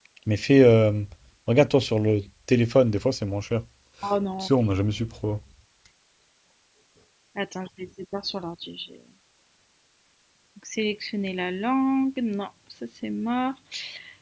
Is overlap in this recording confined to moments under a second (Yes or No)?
Yes